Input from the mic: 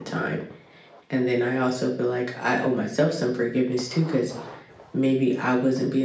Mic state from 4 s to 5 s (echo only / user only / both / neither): user only